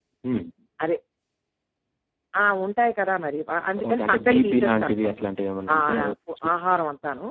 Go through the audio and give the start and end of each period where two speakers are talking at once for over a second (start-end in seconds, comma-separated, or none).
3.9-5.1